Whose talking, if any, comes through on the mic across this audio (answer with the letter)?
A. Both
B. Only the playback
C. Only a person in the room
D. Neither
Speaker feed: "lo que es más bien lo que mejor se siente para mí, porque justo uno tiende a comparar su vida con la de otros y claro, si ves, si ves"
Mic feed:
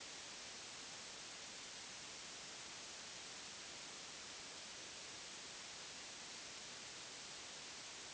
D